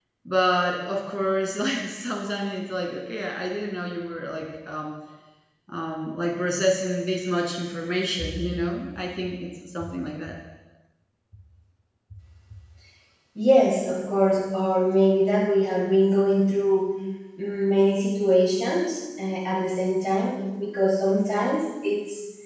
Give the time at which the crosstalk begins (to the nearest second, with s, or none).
none